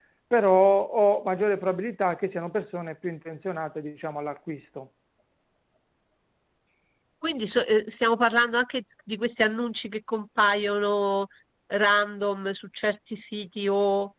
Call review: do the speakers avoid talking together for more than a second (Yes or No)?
Yes